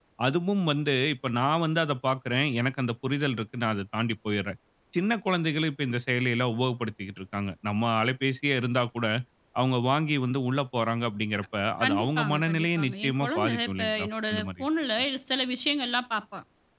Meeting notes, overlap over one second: present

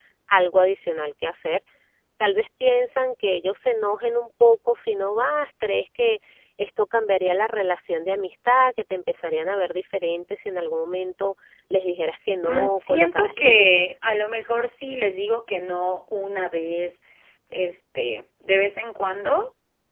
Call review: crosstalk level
present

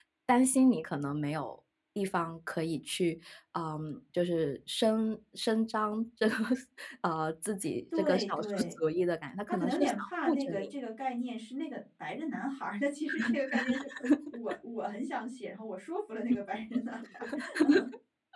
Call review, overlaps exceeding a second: present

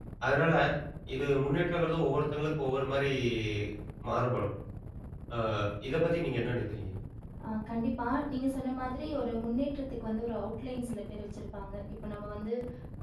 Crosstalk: none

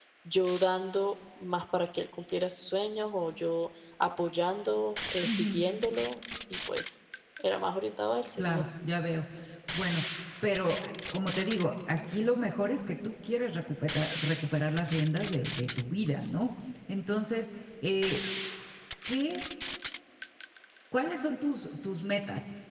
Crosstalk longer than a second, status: none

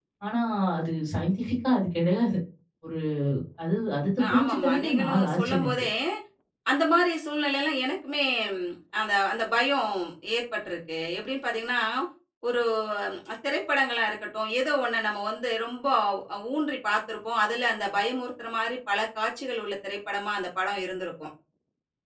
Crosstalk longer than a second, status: present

